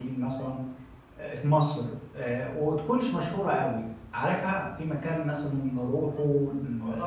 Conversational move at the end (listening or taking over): taking over